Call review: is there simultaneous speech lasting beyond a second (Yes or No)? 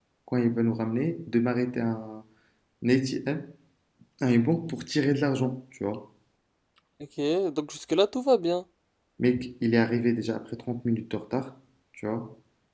No